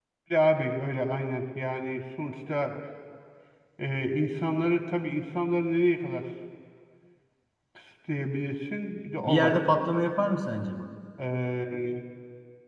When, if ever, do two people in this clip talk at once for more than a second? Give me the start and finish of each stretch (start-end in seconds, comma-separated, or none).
none